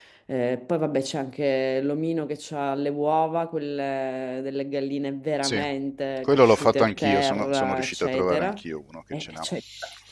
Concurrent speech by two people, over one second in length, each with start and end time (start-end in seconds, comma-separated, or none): 6.2-8.6